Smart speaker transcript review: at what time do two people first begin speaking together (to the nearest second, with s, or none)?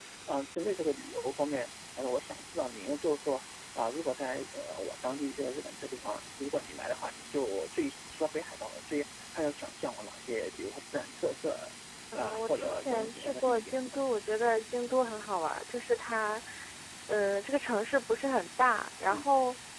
12 s